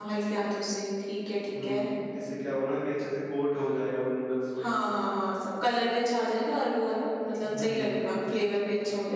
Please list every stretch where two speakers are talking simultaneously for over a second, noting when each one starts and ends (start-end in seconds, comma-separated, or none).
none